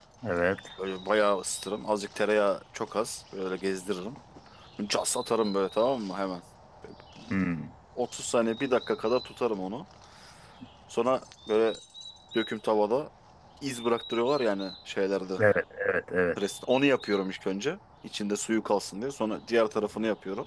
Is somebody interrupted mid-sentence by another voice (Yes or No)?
No